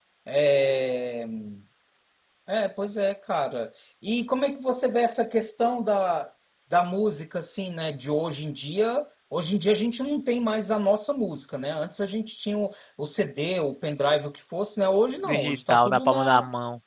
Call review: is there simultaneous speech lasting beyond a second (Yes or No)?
Yes